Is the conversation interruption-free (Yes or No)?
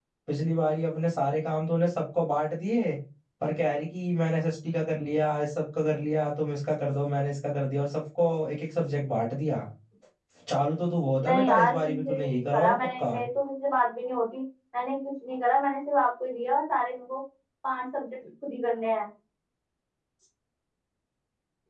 No